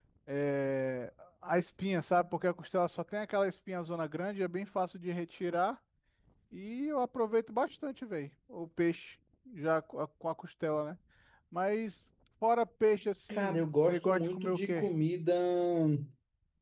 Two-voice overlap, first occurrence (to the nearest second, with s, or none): 13 s